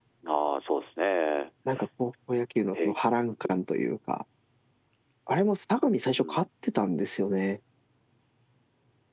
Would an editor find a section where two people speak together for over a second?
No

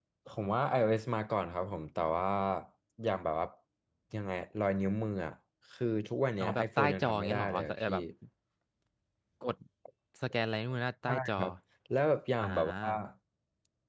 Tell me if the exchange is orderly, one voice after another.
No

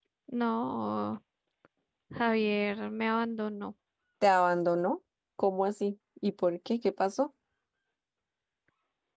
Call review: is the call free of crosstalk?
Yes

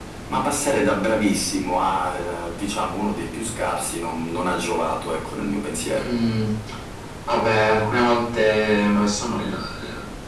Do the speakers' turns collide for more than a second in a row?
No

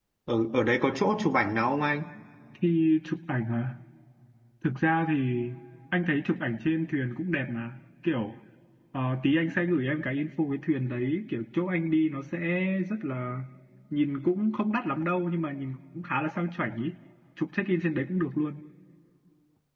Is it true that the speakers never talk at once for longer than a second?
Yes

